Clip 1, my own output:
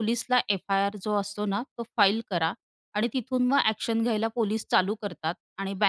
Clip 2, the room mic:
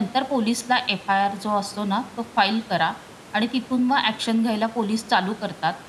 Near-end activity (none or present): none